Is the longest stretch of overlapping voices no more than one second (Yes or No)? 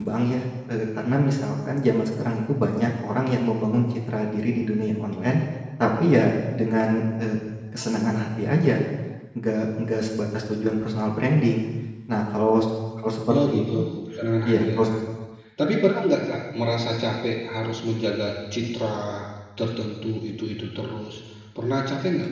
Yes